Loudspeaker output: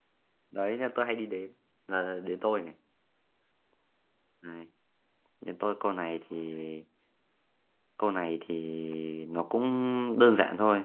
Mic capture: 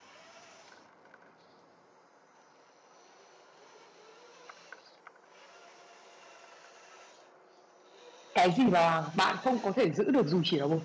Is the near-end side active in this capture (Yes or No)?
Yes